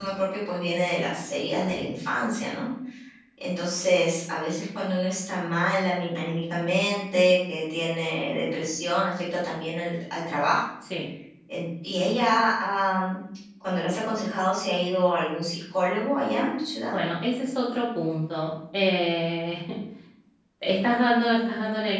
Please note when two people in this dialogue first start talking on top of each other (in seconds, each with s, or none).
none